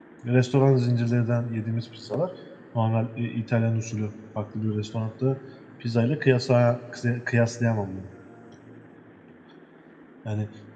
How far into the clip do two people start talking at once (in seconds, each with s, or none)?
none